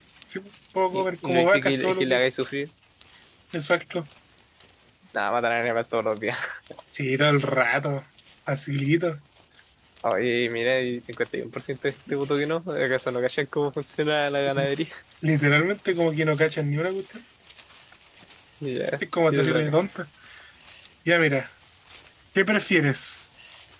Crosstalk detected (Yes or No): Yes